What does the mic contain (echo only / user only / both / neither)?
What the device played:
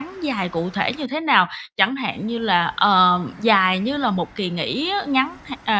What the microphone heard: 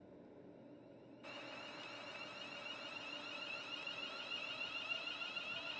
neither